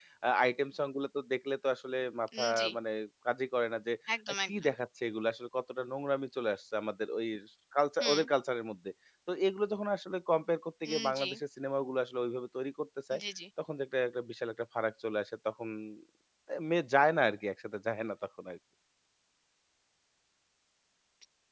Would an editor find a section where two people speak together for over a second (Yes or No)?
No